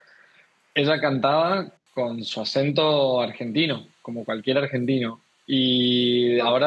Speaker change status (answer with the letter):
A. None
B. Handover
A